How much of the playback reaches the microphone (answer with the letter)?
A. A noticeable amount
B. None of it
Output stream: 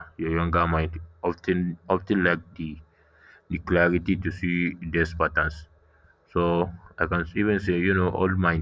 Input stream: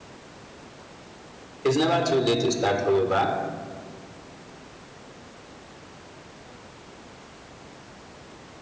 B